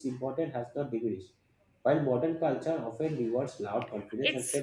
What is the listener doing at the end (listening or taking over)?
listening